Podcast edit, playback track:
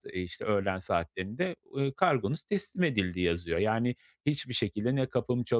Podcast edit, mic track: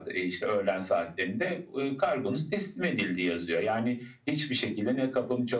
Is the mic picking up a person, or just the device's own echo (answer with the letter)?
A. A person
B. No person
B